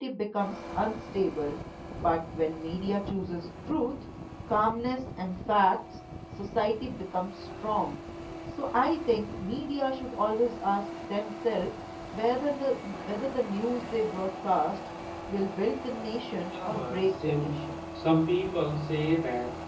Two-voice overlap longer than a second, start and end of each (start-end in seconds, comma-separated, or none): 16.4-17.7